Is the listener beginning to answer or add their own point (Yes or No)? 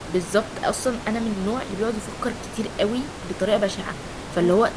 No